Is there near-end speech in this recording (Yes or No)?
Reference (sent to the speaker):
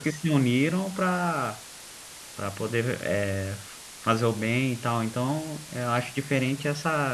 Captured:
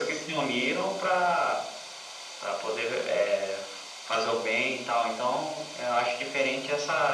No